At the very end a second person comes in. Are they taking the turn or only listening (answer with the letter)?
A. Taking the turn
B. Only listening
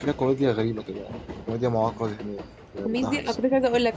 A